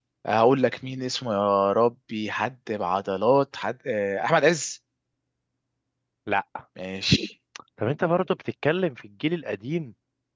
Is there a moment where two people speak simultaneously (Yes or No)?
No